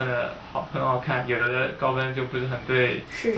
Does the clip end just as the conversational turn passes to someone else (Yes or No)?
Yes